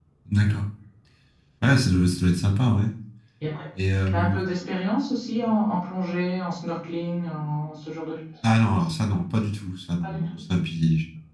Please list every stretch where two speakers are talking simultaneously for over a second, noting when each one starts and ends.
none

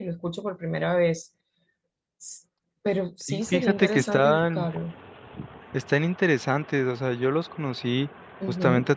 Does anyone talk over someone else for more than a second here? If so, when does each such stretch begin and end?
3.3-4.7

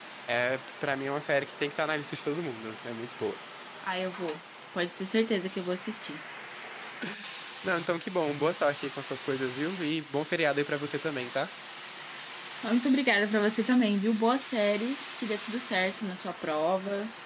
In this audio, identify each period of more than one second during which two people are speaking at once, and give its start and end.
none

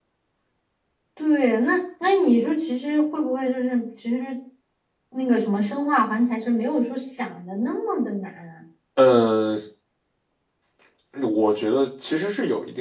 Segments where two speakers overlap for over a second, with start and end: none

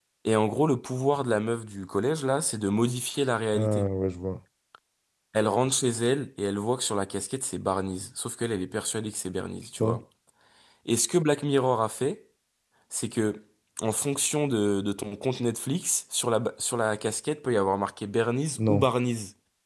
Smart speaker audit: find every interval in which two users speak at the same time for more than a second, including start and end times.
none

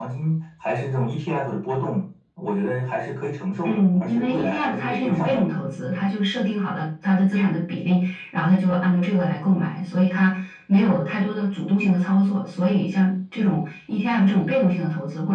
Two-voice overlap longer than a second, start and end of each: 3.6-5.5

